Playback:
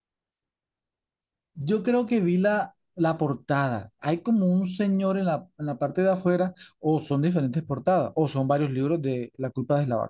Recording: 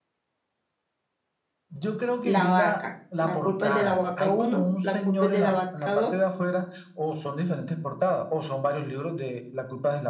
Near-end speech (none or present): present